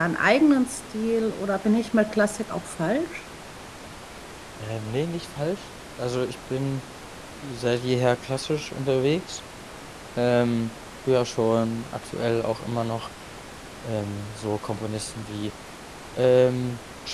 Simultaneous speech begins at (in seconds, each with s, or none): none